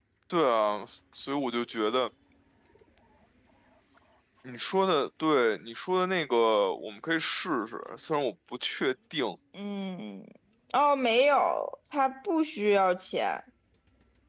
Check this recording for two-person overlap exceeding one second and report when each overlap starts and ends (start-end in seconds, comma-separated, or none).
none